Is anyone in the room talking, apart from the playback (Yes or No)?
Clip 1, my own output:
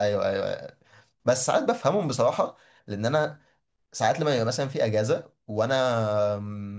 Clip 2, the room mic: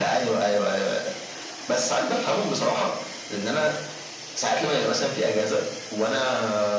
No